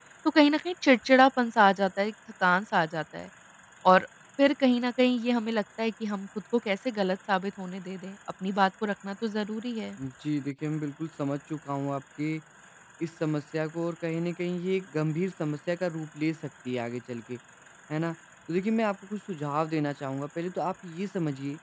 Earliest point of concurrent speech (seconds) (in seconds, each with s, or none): none